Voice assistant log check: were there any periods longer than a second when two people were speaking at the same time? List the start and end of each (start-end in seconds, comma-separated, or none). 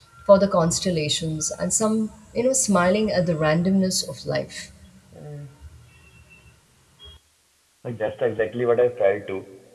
none